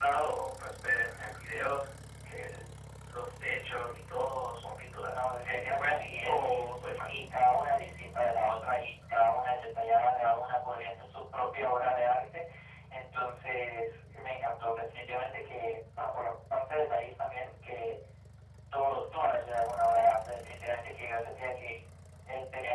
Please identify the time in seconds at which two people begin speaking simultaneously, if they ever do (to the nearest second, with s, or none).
5 s